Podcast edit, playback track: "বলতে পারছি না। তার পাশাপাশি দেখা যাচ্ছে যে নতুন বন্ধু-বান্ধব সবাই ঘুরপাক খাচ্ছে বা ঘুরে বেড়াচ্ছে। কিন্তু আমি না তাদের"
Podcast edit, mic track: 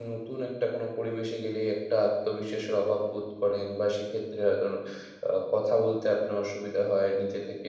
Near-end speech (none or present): present